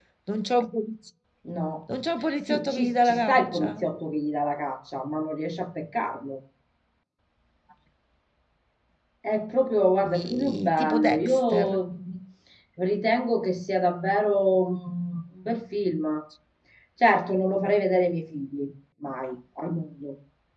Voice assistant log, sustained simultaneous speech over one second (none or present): present